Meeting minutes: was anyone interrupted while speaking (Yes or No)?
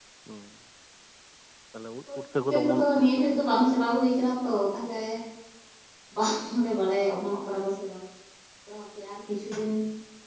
Yes